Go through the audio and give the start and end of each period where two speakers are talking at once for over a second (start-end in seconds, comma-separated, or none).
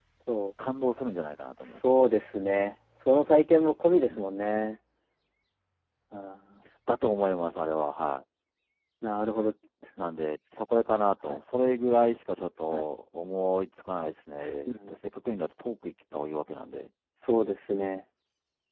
none